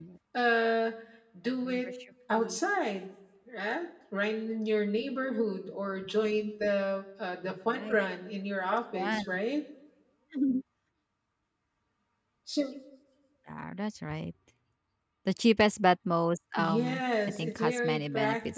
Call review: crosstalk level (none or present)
present